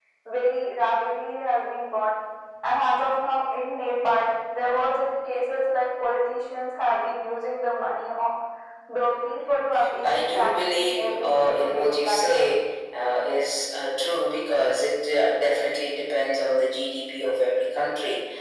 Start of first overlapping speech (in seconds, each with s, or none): 10.0 s